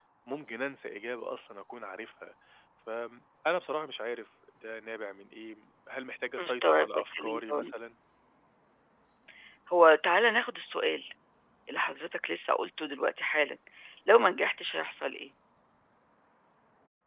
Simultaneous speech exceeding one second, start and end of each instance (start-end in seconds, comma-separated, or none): 6.4-7.7